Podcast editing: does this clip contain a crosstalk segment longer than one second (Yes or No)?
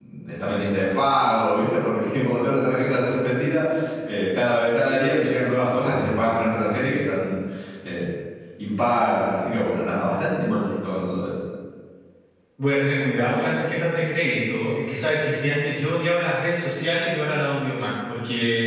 No